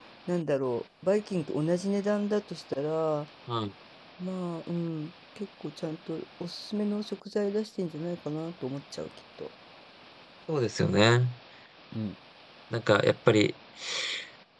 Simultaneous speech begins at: none

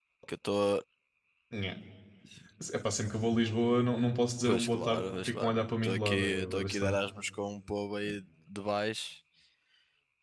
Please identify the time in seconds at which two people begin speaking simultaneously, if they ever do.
4.4 s

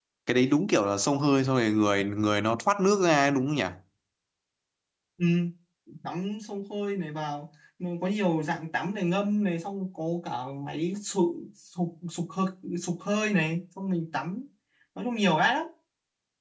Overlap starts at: none

